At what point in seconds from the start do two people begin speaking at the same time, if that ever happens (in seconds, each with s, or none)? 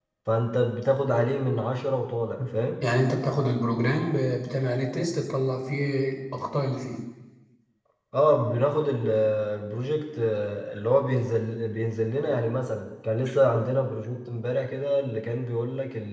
none